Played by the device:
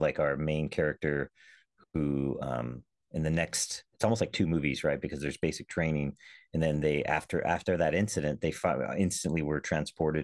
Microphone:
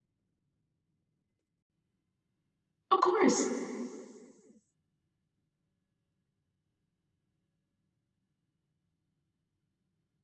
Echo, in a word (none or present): none